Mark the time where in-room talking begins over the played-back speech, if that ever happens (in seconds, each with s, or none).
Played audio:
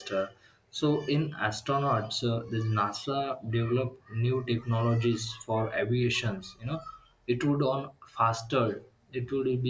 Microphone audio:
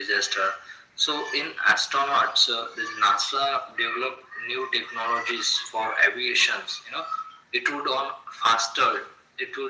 none